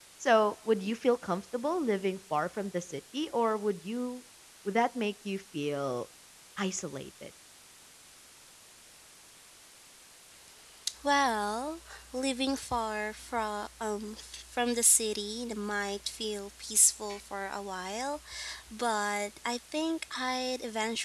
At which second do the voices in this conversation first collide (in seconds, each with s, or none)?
none